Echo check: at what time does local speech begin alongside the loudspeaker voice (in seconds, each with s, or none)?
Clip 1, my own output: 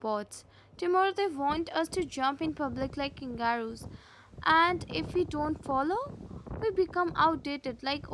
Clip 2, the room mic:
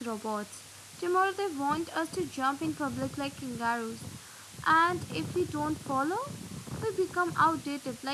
none